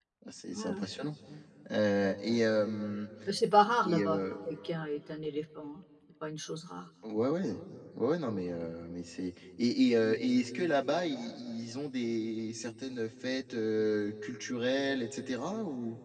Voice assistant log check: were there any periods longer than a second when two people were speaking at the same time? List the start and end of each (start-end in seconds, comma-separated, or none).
none